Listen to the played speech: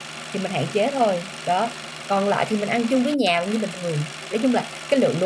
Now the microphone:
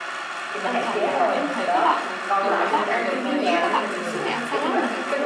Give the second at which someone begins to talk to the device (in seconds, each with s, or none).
0.6 s